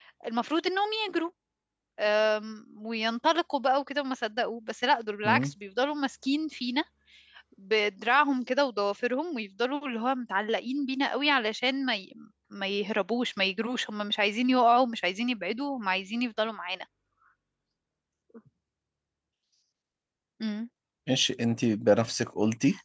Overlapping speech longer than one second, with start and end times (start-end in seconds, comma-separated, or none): none